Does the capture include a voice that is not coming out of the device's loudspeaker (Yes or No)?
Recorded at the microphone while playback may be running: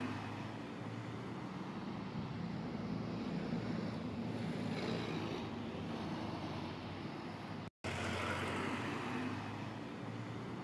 No